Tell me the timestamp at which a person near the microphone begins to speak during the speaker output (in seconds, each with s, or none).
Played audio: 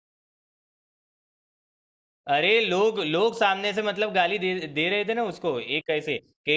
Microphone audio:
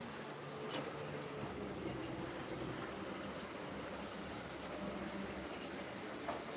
none